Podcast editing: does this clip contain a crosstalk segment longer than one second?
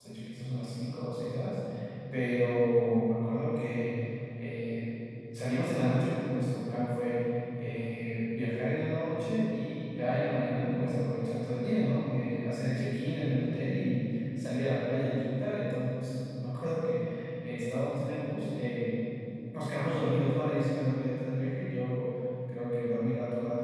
No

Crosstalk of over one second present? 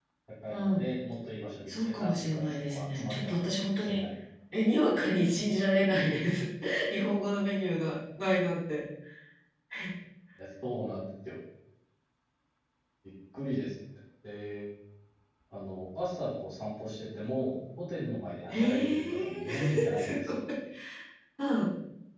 Yes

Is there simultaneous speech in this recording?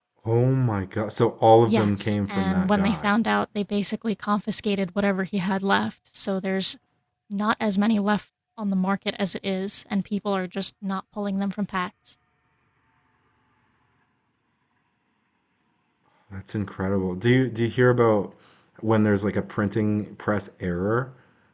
Yes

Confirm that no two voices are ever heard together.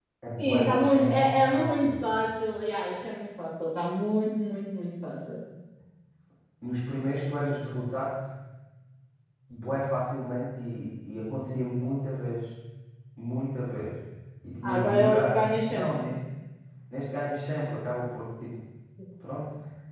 No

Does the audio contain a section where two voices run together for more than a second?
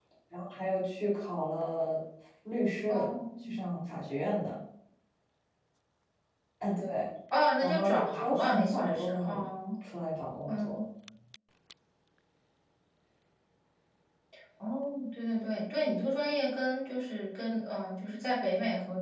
Yes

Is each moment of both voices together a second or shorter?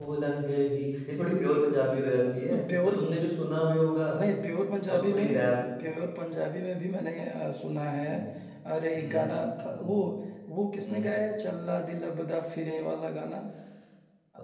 Yes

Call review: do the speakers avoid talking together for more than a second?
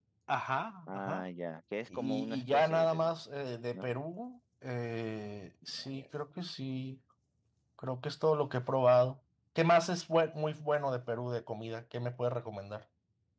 No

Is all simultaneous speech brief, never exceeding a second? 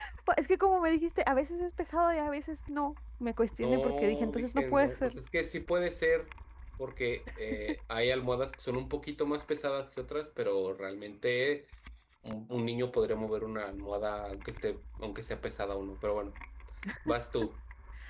No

